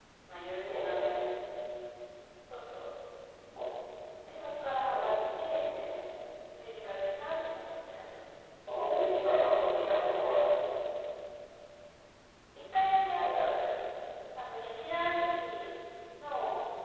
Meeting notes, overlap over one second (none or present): none